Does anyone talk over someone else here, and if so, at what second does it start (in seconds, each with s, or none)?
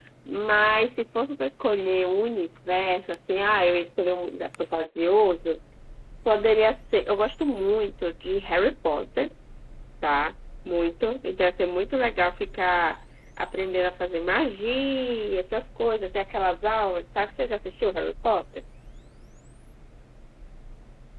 none